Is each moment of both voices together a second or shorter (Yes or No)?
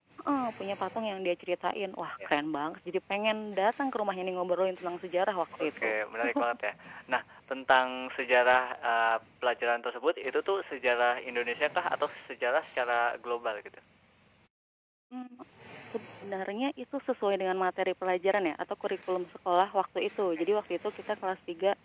Yes